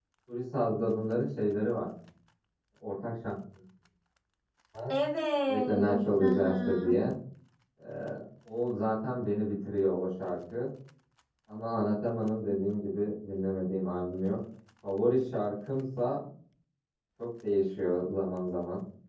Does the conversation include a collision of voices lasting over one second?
Yes, from 5.5 s

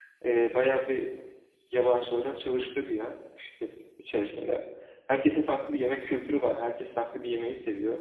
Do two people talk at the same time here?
No

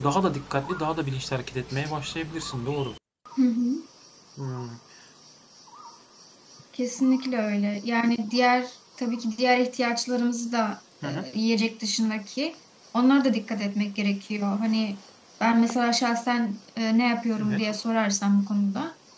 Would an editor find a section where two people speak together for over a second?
No

